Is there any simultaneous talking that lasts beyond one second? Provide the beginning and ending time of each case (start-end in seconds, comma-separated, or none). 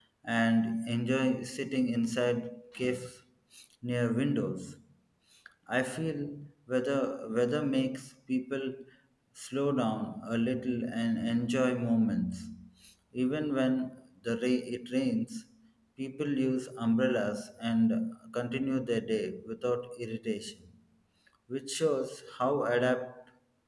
none